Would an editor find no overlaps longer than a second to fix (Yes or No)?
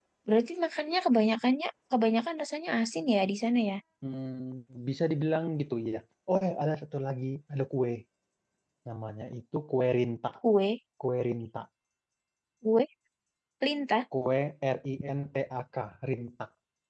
Yes